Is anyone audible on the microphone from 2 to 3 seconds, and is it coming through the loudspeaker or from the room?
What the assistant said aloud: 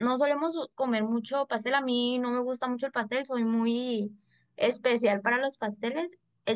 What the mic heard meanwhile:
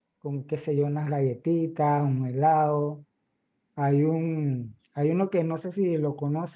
user only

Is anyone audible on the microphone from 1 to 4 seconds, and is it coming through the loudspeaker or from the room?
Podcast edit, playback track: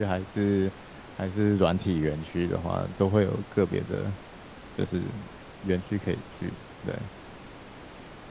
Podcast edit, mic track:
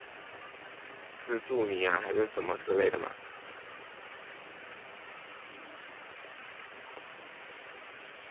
user only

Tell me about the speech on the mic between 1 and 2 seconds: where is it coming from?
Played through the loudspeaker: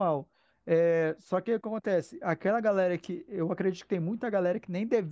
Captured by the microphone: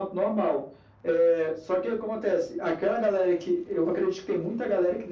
echo only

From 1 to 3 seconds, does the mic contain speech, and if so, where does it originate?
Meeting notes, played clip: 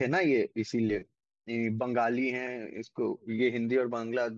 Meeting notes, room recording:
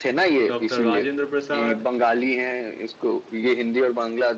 both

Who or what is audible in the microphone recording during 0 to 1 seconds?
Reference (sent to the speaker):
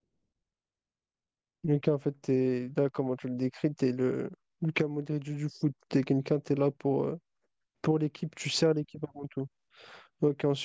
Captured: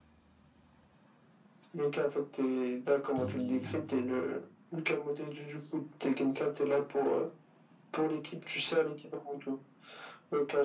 neither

